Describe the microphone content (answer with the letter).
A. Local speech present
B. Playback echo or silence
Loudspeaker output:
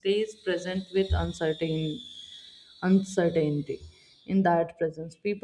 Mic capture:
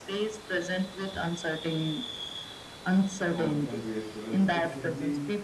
A